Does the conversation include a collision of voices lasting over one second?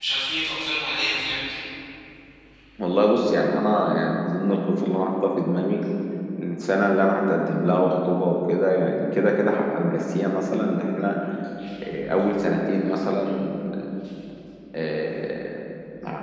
No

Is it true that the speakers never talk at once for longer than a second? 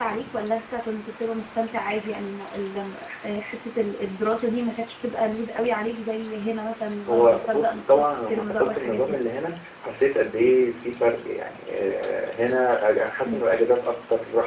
No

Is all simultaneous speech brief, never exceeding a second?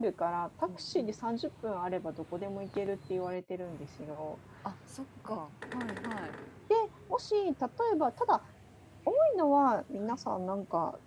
Yes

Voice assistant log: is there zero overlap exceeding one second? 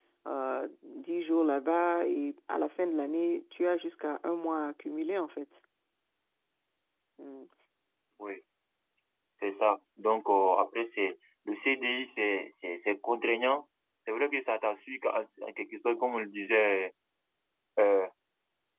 Yes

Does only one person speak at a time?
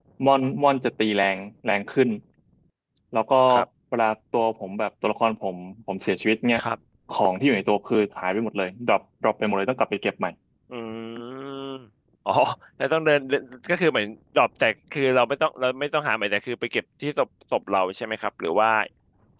Yes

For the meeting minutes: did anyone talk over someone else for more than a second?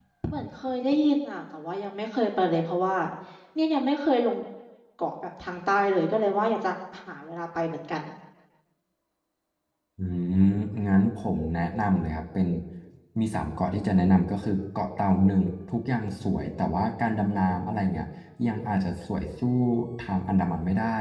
No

